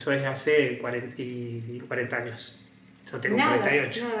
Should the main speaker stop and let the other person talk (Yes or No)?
Yes